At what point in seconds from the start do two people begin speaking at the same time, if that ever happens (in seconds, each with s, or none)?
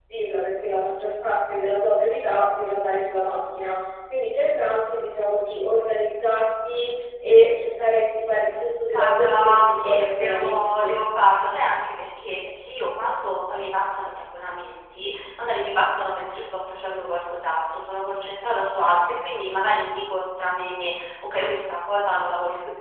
8.9 s